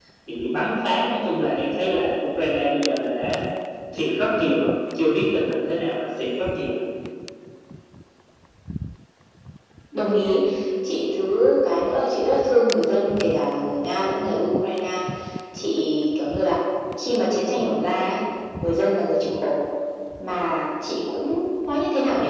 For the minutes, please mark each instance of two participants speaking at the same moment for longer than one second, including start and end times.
none

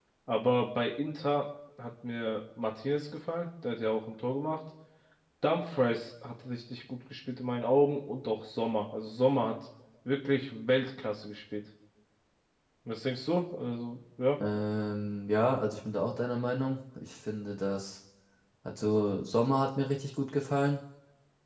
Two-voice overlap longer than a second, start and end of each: none

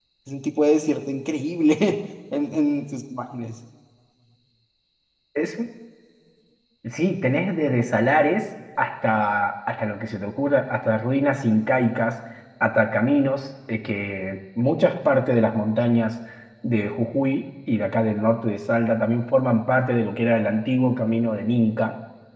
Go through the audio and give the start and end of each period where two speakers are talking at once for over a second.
none

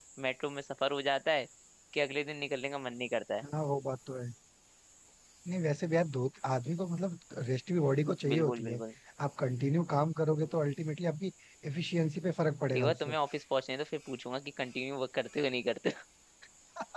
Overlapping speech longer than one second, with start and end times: none

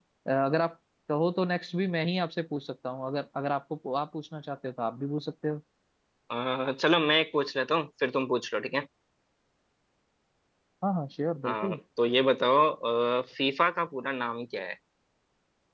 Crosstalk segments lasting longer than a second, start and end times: none

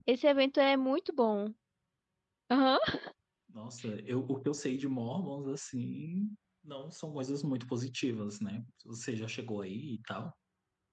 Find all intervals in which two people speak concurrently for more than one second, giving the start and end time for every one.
none

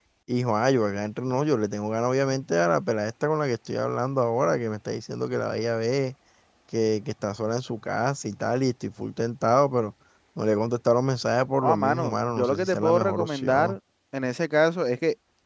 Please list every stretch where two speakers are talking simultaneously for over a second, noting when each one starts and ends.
11.6-13.8

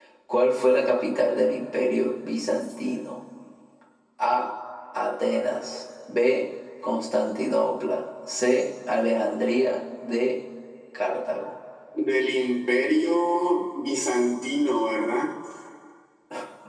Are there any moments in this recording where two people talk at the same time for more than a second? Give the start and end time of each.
none

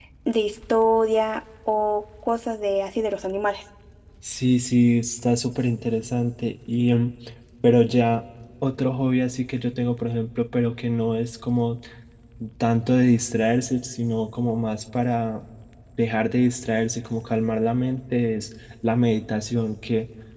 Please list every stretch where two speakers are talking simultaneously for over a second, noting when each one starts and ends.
none

